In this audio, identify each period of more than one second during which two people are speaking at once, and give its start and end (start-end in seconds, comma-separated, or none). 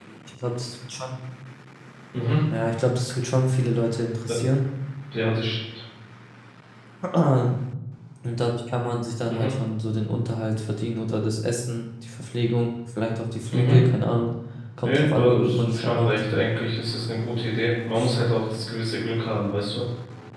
14.8-16.1